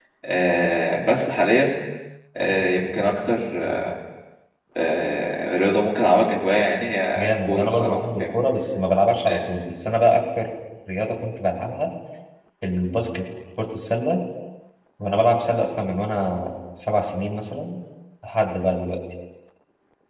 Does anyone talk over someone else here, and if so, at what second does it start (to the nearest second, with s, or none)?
7 s